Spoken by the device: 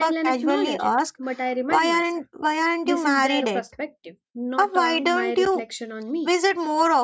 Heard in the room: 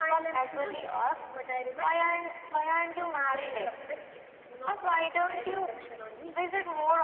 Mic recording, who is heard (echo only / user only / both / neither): echo only